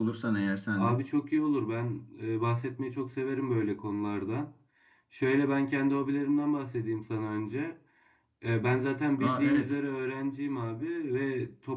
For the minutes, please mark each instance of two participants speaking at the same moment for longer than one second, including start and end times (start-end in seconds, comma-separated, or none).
none